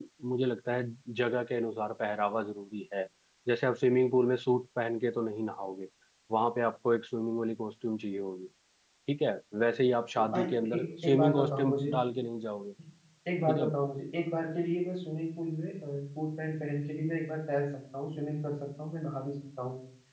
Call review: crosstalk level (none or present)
present